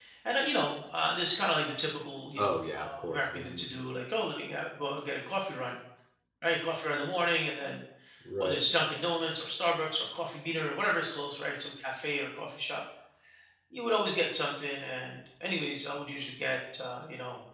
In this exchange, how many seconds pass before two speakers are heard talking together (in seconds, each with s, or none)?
2.4 s